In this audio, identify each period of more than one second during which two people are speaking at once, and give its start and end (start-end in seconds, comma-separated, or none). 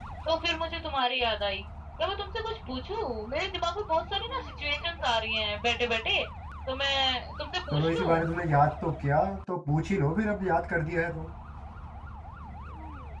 none